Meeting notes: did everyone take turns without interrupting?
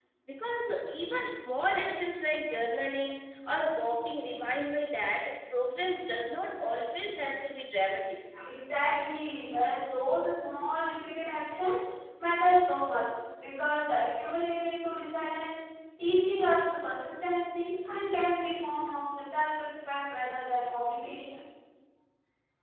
Yes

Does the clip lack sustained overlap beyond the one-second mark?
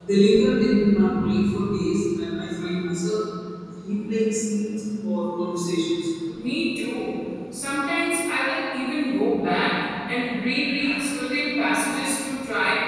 Yes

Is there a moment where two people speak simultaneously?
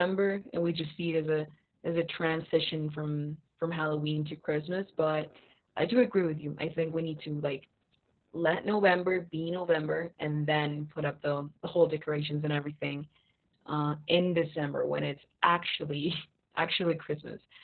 No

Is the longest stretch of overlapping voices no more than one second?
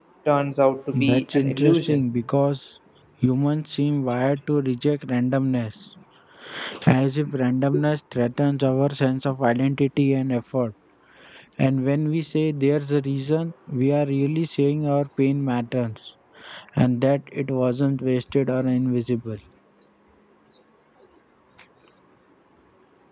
No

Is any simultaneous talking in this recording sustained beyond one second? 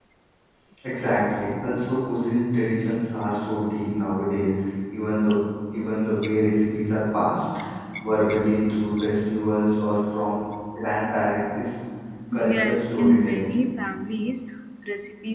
Yes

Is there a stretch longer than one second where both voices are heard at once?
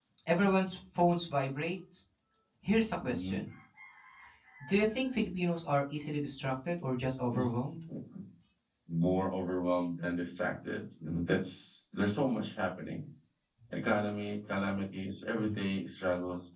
No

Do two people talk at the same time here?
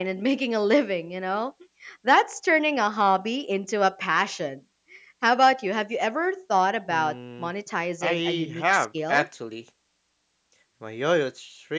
Yes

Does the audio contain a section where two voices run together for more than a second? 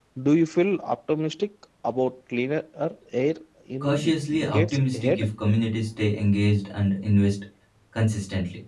Yes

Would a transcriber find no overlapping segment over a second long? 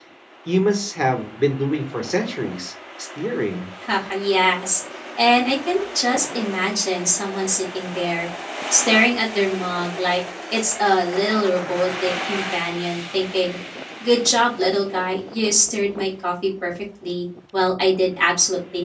Yes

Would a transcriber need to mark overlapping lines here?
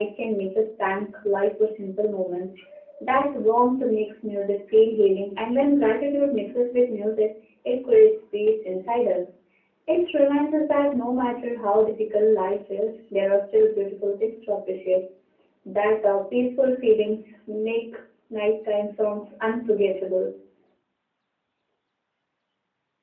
No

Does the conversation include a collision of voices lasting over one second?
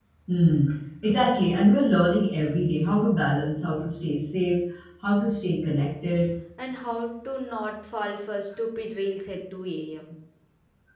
No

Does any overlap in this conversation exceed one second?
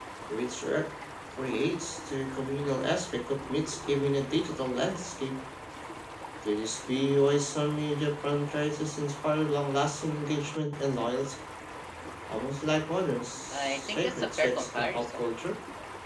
Yes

